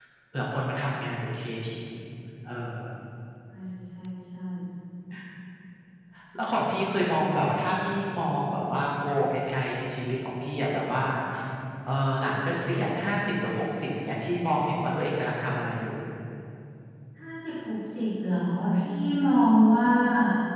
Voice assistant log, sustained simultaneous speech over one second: none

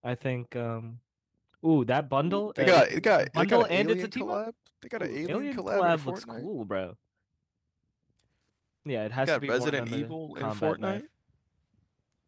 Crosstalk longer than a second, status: present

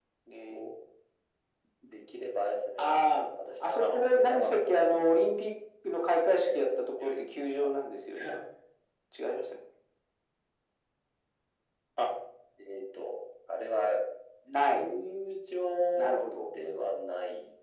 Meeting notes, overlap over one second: present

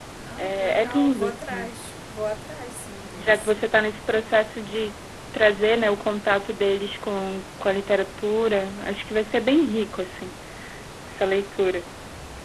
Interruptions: present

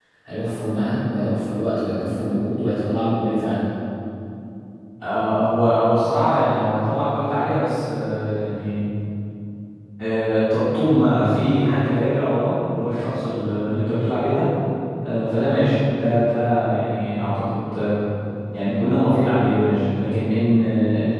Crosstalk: none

